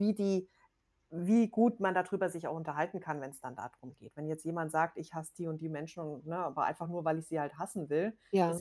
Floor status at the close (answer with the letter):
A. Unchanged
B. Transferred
A